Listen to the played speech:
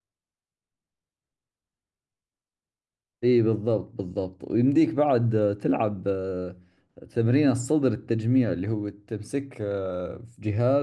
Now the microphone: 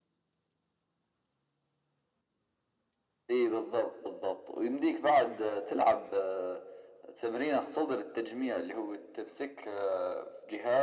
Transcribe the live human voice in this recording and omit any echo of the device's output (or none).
none